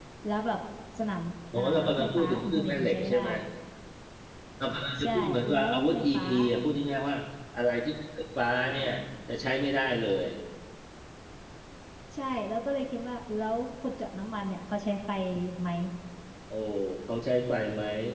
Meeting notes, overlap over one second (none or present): present